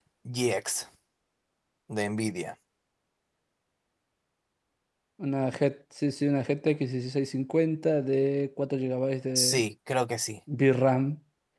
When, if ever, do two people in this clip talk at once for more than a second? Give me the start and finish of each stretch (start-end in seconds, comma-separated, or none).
none